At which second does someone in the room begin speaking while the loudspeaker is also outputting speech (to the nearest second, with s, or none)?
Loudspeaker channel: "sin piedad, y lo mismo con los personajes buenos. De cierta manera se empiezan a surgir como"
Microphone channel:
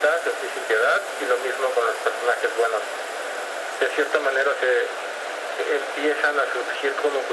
none